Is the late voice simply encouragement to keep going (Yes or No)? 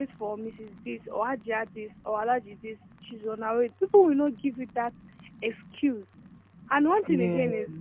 Yes